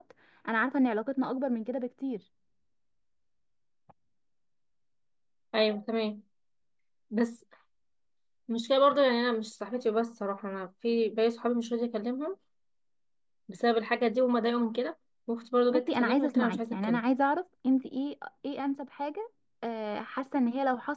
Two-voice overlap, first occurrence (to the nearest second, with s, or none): 16 s